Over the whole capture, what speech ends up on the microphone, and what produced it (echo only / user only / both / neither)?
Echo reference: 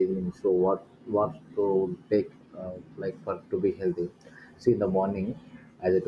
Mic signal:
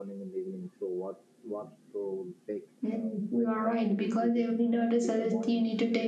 both